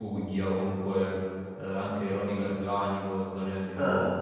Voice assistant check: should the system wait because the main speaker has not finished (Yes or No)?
Yes